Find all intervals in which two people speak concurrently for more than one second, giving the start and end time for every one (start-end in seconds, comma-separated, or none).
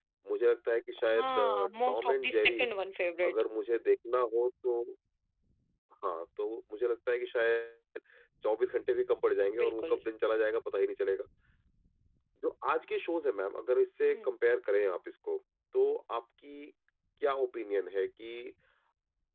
1.2-2.6